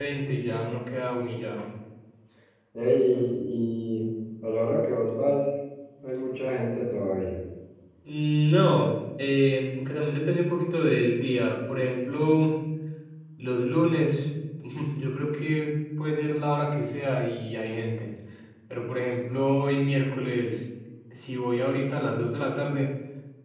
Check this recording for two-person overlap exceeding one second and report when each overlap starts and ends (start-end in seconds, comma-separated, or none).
none